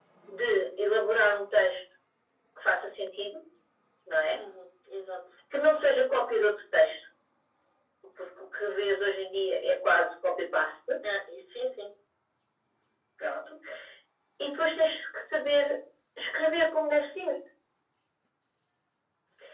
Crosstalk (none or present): none